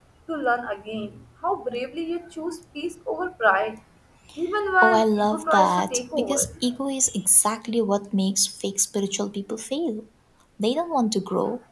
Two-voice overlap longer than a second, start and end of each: 4.8-6.5

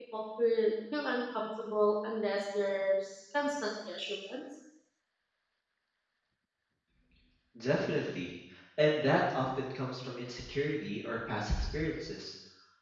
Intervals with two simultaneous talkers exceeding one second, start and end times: none

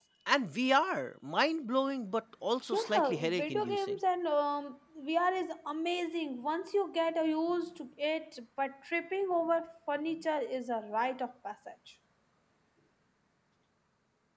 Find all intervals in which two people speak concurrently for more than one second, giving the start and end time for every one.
2.7-4.0

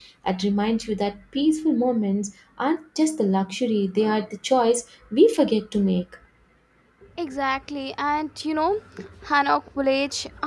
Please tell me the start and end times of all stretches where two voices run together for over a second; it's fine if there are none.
none

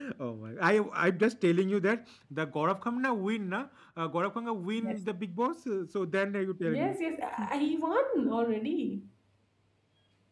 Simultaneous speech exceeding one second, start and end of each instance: none

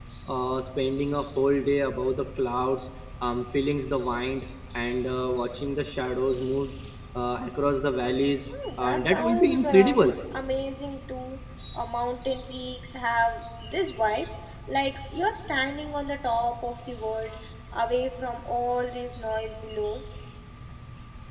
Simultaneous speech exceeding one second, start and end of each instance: 8.8-10.0

